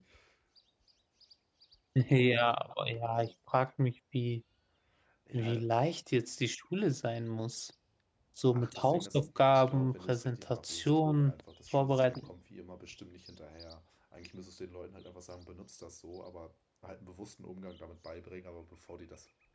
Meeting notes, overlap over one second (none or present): present